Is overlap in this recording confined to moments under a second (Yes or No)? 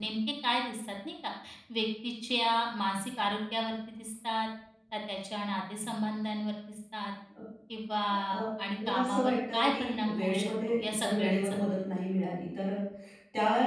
No